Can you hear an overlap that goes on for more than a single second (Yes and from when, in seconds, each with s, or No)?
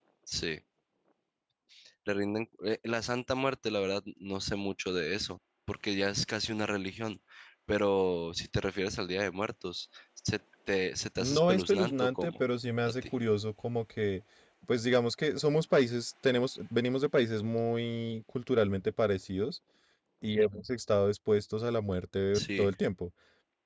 Yes, from 11.2 s